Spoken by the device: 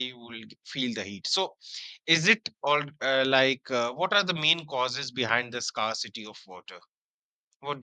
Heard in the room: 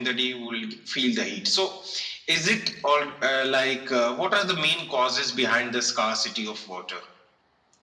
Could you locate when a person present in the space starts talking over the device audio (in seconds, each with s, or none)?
none